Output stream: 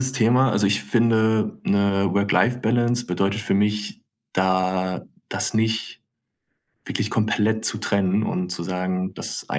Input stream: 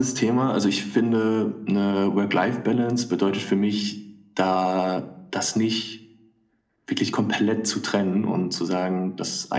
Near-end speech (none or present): none